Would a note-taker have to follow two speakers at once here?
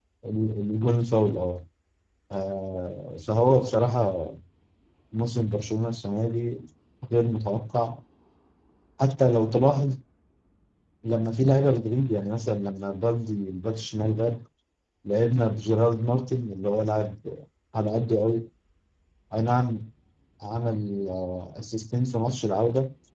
No

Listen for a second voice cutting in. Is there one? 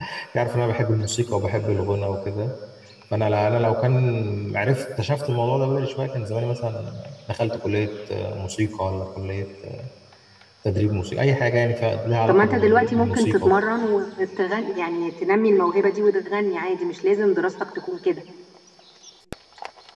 Yes, from 12.3 s

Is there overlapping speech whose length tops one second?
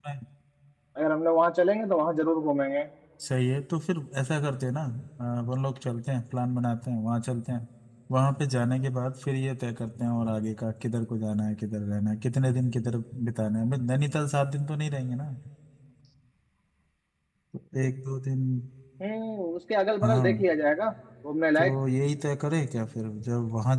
No

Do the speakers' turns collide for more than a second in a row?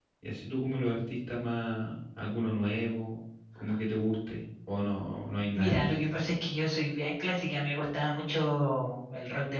No

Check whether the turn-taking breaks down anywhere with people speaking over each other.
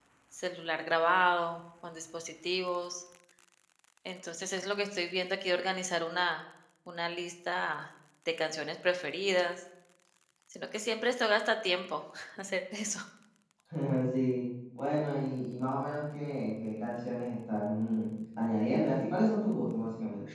No

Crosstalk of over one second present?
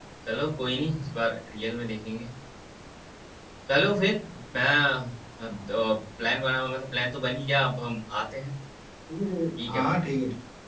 No

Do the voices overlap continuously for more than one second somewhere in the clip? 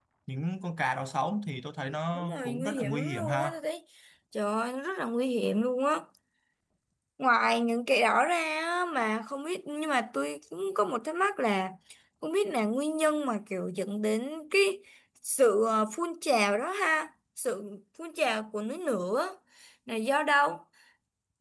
Yes, from 2.1 s

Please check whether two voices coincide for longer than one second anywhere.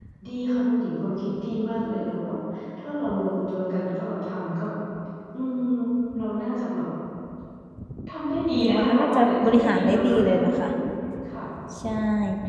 Yes, from 8.6 s

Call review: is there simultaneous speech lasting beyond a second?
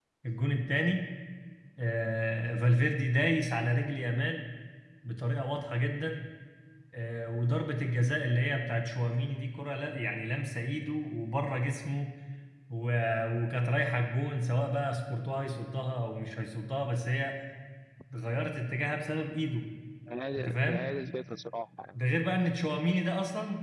No

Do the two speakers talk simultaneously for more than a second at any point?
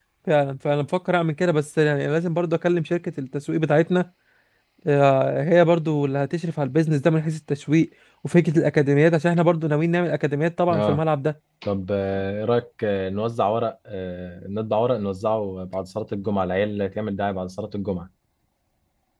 No

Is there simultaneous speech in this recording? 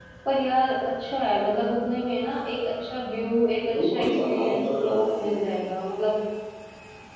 Yes, from 3.7 s

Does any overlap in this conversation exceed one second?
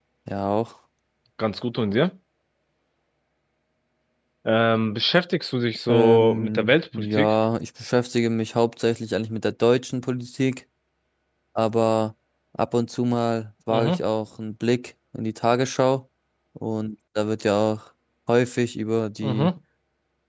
Yes, from 5.9 s

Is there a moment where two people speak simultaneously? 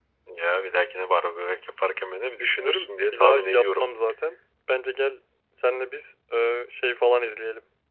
Yes, from 2.4 s

